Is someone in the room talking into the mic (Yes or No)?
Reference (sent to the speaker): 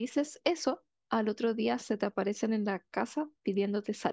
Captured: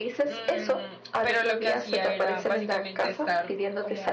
Yes